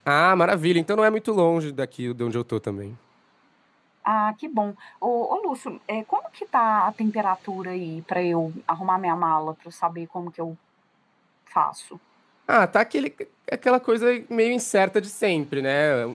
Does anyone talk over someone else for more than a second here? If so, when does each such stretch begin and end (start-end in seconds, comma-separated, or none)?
none